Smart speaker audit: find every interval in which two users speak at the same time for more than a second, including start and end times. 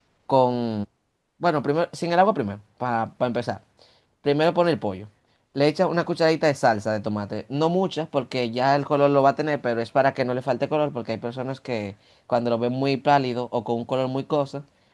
none

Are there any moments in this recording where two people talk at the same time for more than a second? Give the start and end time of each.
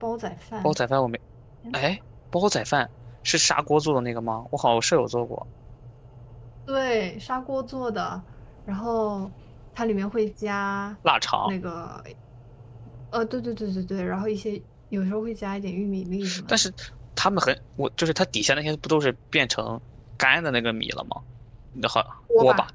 none

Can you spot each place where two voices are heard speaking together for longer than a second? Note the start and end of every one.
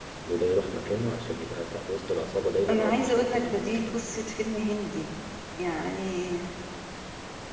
2.7-3.9

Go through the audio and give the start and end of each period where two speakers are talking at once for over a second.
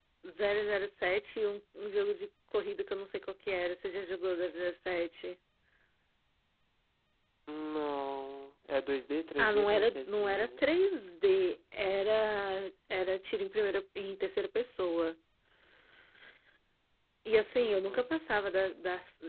9.4-10.6

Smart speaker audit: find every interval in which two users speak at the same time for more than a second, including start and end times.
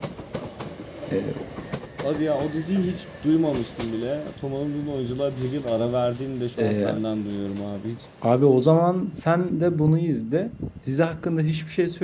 none

